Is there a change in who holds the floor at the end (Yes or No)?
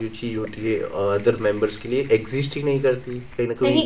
No